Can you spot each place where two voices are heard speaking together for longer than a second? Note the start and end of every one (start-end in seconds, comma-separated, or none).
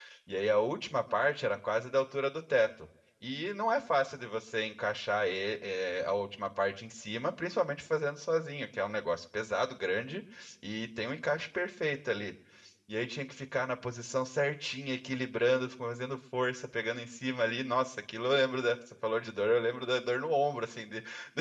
none